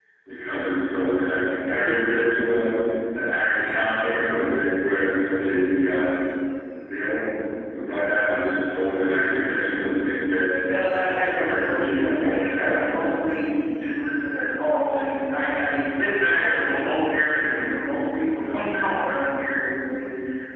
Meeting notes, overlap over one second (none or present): present